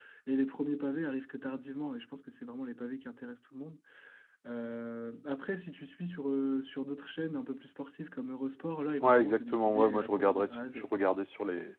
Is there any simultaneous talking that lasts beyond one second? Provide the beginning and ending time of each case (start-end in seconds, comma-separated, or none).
9.0-10.9